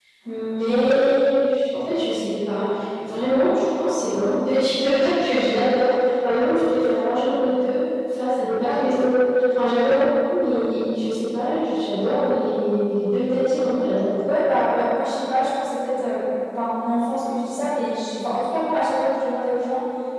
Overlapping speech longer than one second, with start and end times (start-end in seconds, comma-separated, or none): none